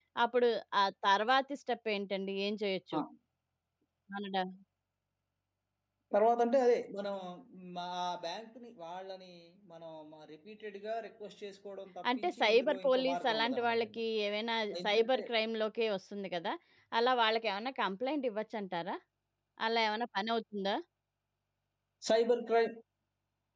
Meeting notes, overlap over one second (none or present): present